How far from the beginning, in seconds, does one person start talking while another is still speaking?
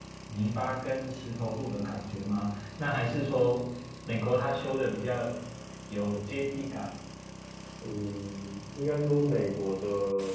none

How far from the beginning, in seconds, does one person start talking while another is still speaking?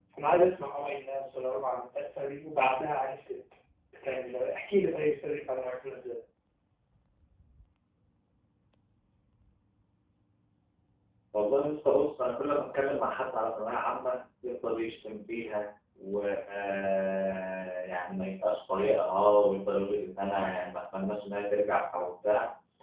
none

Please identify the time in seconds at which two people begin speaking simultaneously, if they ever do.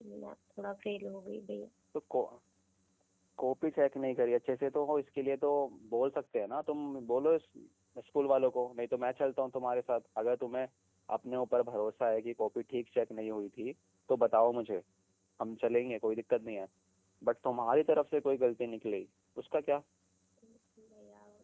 none

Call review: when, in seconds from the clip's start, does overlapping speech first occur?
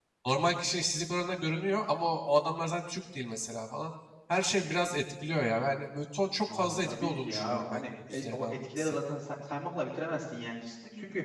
6 s

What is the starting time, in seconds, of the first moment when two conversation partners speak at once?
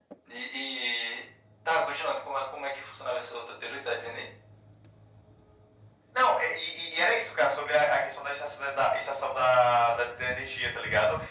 none

